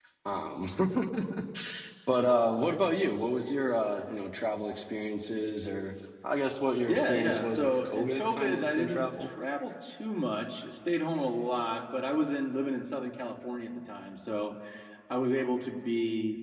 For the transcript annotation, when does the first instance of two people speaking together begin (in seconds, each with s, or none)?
6.9 s